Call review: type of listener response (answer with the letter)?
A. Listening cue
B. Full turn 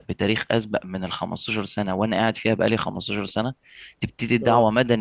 A